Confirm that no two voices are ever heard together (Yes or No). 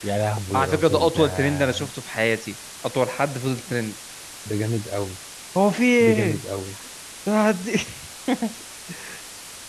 No